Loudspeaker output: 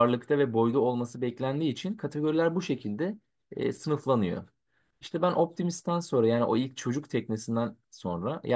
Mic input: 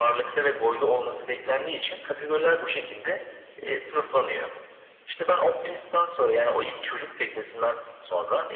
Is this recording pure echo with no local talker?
Yes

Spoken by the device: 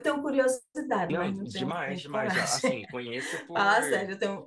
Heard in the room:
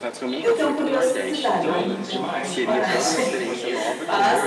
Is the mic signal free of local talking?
No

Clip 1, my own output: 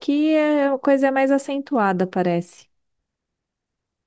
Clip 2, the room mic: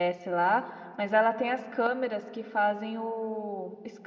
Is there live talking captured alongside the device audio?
Yes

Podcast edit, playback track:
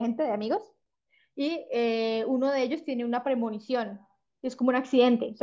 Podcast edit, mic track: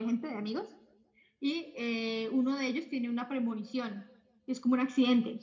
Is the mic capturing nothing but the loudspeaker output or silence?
Yes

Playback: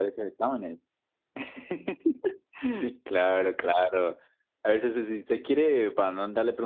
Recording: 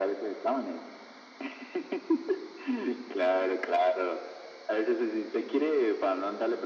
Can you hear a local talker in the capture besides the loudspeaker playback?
No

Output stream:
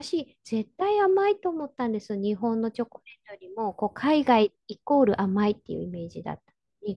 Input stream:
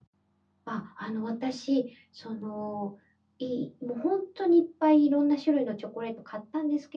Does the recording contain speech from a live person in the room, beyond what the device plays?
Yes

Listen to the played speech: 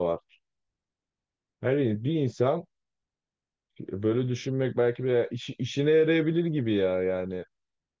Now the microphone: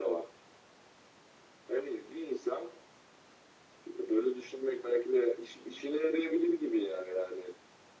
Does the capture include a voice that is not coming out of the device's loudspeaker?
No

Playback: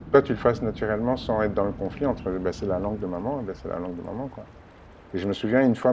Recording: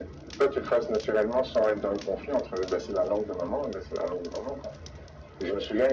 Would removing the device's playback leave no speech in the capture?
Yes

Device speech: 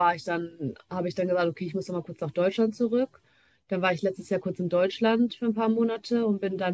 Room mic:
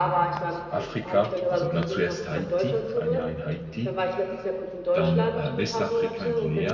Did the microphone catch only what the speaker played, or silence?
No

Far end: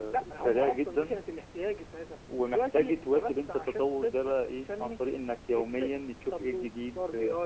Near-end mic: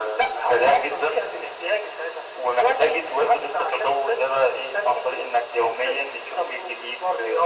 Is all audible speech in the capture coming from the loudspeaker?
Yes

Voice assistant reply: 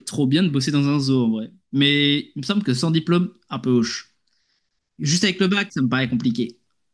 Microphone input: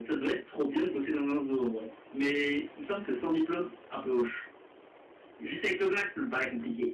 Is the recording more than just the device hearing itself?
No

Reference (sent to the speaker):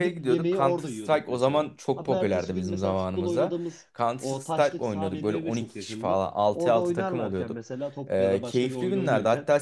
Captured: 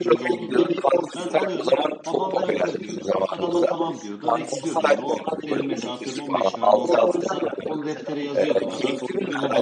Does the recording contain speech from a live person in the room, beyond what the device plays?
Yes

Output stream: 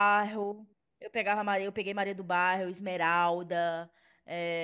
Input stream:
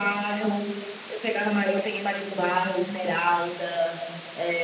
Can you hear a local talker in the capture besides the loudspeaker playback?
No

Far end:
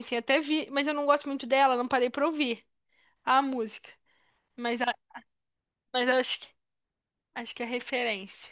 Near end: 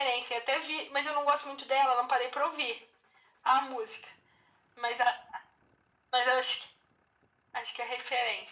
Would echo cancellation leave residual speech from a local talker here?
No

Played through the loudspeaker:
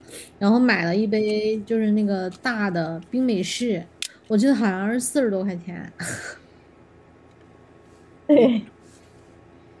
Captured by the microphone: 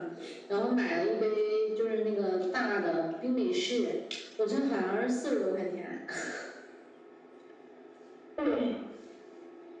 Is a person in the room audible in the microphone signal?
No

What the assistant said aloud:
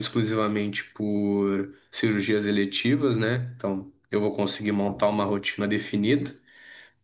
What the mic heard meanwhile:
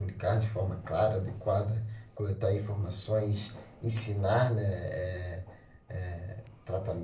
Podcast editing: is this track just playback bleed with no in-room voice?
No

